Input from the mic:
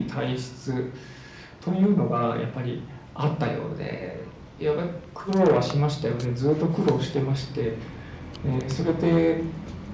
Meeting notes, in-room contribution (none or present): none